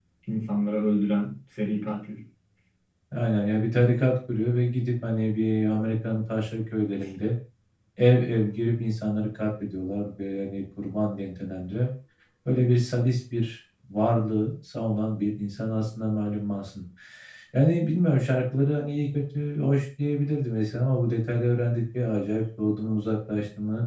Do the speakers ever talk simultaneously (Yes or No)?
No